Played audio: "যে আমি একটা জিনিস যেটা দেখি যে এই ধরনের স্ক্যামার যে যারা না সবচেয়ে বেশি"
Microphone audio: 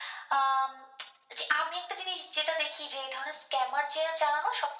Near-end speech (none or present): none